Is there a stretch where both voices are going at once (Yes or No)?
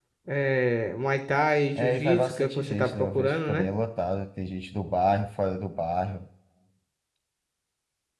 Yes